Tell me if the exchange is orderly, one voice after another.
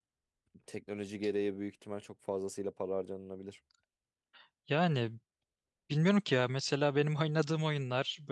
Yes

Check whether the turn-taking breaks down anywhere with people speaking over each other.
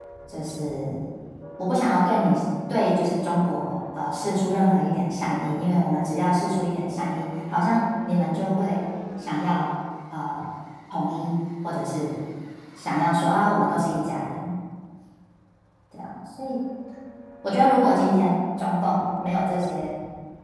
No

